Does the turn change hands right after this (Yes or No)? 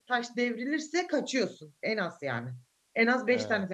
No